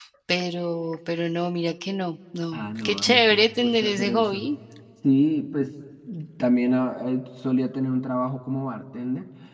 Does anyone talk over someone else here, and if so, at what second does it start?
2.5 s

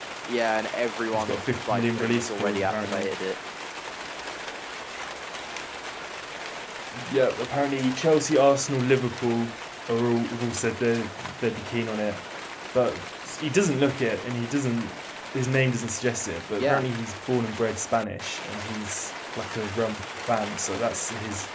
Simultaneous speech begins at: 1.1 s

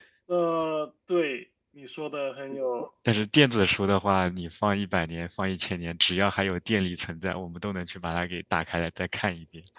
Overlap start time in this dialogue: none

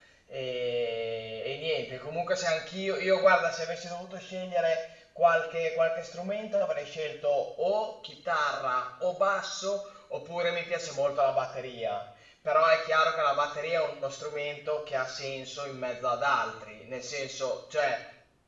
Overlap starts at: none

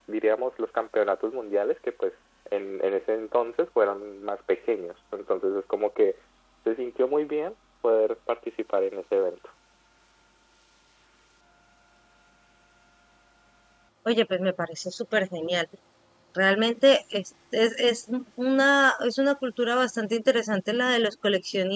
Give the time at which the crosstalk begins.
none

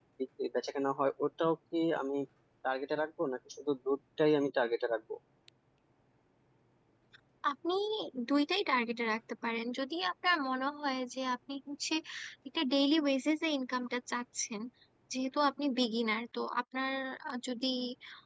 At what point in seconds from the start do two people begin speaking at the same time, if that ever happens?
none

